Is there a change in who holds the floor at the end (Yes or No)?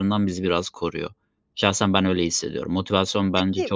No